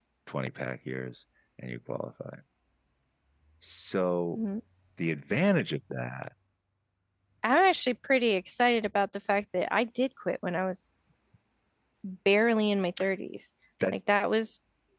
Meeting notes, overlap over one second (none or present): none